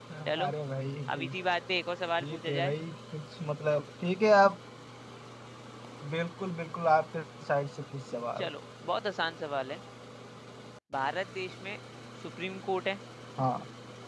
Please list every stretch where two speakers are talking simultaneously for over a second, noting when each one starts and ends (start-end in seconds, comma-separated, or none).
none